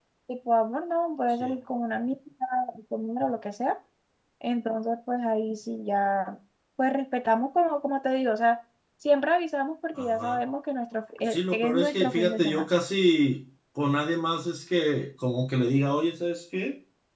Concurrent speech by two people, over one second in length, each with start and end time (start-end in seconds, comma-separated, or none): 11.2-12.7